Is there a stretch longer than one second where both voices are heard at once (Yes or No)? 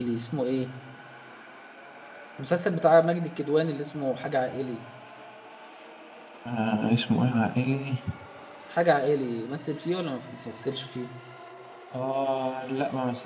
No